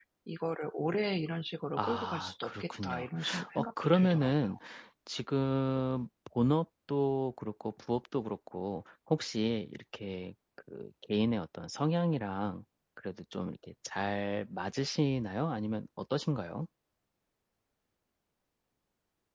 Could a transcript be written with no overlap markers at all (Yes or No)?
No